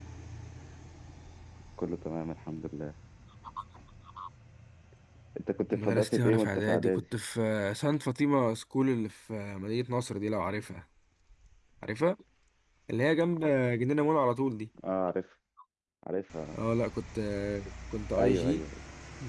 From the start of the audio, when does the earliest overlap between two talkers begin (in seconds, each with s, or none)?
5.7 s